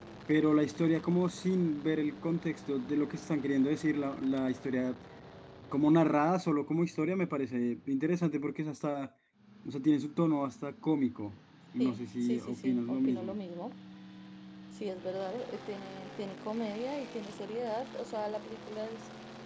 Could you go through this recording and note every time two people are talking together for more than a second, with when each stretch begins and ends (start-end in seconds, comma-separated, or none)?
11.8-13.3